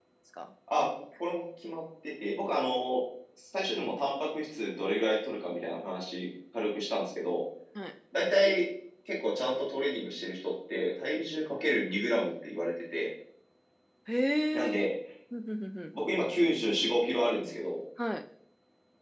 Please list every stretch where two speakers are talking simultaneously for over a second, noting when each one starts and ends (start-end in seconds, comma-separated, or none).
none